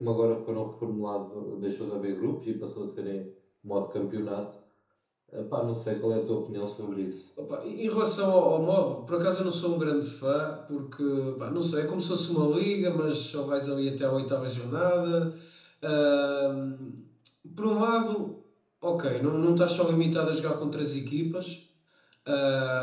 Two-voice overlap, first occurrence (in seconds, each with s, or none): none